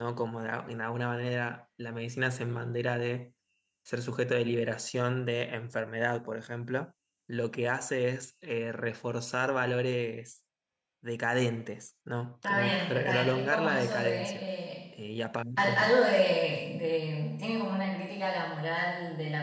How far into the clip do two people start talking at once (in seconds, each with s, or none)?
12.4 s